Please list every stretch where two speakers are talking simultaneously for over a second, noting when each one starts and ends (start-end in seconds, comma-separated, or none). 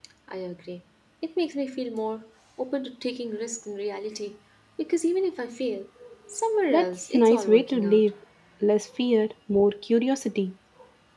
6.7-8.1